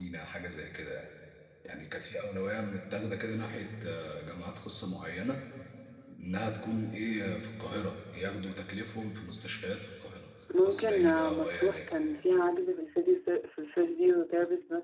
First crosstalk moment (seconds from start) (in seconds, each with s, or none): 10.5 s